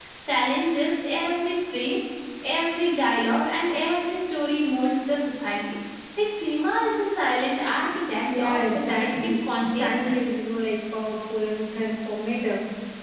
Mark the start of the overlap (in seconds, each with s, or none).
8.3 s